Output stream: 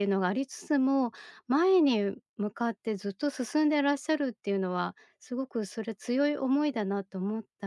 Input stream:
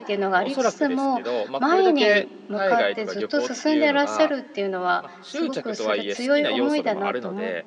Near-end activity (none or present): present